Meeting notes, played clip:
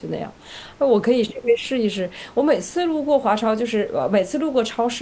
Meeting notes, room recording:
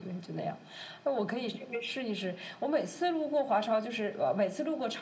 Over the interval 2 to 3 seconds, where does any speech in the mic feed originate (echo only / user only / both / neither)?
echo only